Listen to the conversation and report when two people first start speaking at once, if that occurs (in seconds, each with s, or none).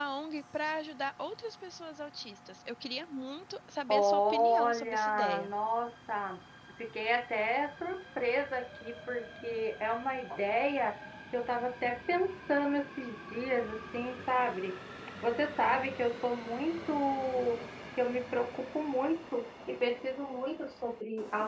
3.9 s